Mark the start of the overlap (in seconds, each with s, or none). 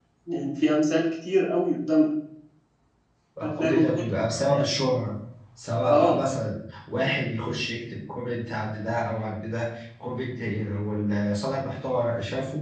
3.4 s